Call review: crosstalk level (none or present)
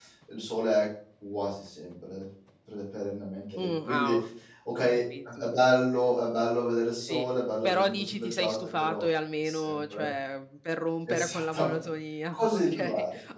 present